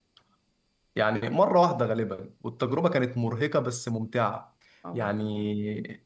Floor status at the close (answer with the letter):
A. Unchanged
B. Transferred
A